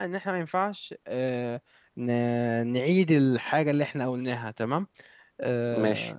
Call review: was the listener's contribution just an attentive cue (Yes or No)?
Yes